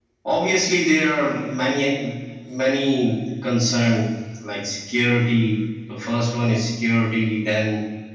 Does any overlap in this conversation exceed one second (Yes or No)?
No